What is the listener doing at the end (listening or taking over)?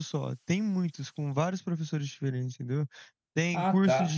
listening